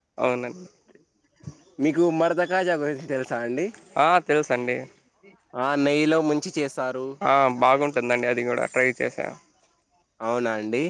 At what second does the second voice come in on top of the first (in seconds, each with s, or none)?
none